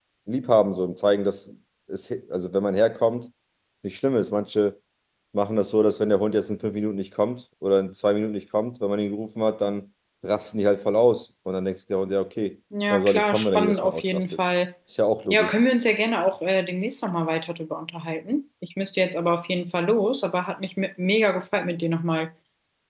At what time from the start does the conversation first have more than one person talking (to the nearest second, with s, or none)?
13 s